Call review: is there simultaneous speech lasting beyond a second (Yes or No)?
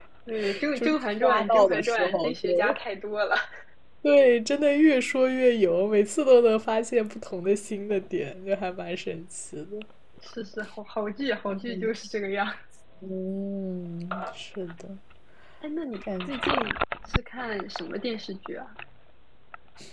Yes